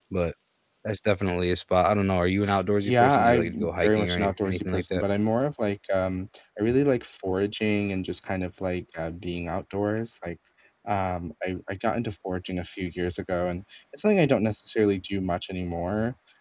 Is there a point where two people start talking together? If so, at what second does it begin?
2.8 s

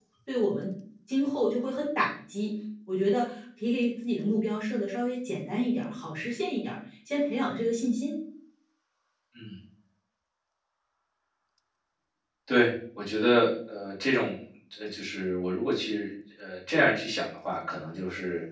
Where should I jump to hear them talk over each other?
none

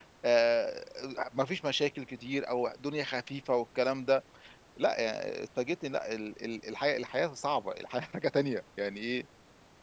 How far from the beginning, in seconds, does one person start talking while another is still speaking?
none

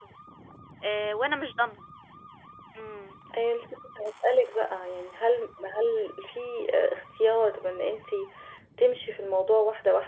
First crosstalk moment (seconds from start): none

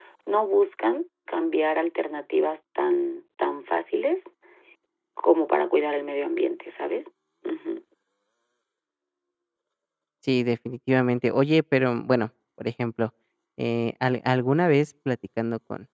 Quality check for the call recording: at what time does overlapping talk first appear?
none

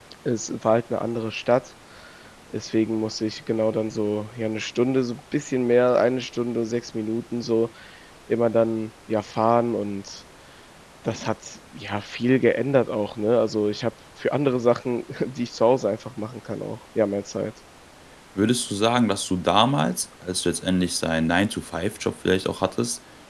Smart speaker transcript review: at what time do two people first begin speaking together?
none

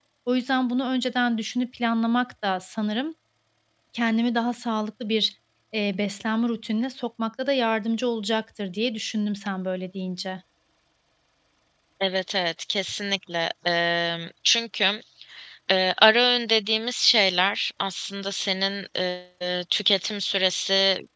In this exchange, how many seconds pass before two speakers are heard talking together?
none

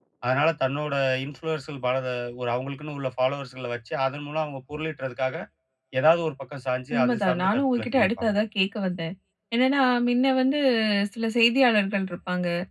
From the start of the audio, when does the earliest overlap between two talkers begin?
6.9 s

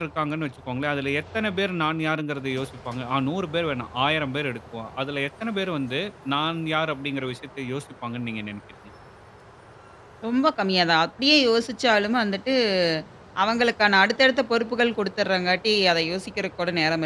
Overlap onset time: none

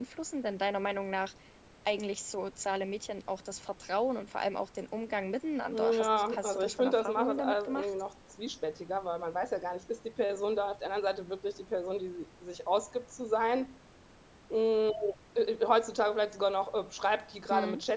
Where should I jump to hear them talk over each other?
5.7 s

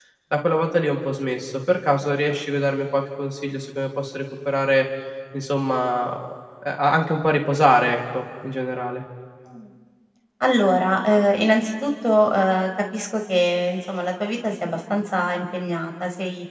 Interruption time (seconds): none

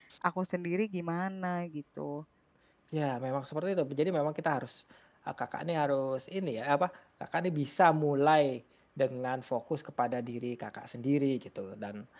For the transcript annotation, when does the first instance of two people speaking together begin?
none

